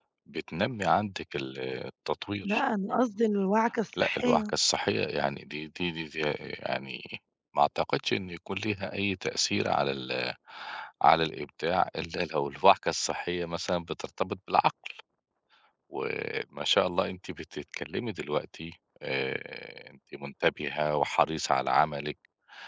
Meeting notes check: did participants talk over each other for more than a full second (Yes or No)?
No